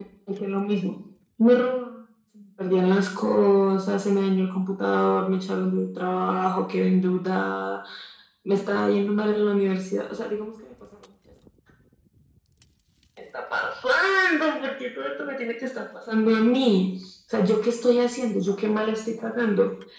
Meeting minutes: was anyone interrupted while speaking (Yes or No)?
No